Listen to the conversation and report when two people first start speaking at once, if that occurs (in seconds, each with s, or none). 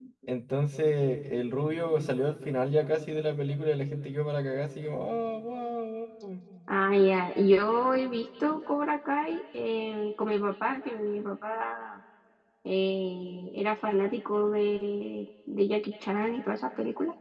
none